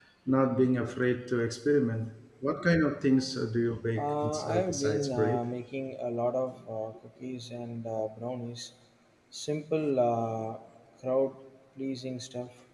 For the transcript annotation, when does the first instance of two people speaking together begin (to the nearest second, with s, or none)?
4 s